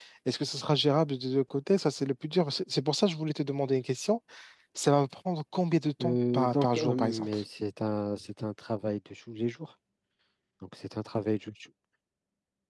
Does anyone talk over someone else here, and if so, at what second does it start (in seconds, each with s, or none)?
6.0 s